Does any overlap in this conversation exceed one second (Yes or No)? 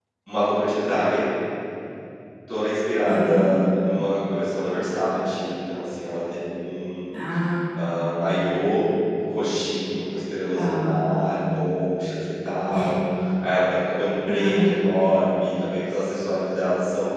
No